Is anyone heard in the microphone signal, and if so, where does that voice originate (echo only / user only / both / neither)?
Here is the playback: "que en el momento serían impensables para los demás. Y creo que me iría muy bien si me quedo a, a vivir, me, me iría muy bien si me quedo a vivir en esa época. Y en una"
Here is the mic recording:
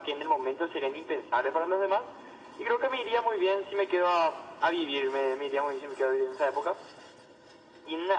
echo only